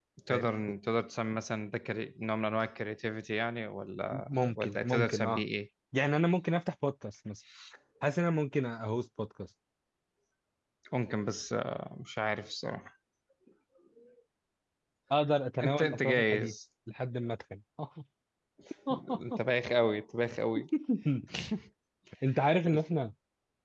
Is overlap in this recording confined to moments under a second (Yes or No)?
No